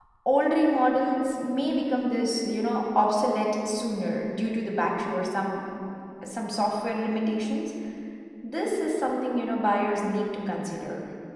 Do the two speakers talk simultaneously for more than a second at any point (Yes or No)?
No